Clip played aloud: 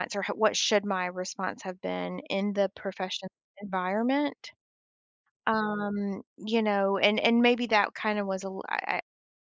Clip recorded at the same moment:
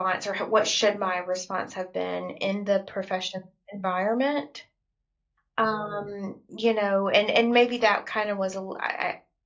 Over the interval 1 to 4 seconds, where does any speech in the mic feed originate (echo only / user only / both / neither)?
echo only